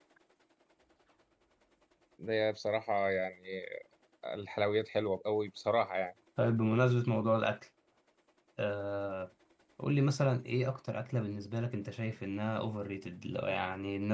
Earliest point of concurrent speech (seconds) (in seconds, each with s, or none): none